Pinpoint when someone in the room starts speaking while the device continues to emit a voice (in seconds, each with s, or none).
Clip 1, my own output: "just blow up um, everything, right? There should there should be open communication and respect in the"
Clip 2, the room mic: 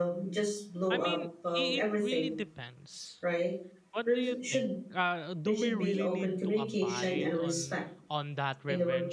0.9 s